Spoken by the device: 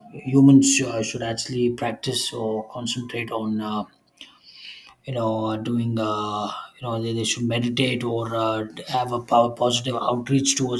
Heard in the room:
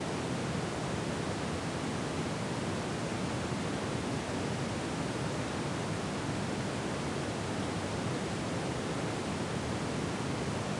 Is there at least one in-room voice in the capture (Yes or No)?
No